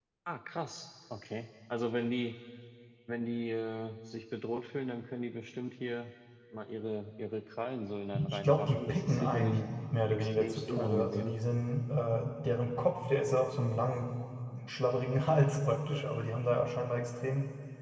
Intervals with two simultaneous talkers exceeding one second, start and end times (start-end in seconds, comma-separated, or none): 8.1-9.6, 10.1-11.3